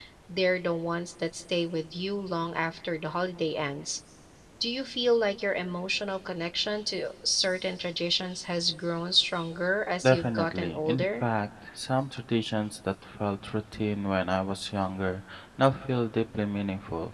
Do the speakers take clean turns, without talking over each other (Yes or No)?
No